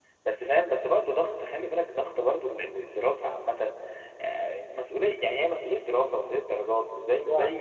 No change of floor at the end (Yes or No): Yes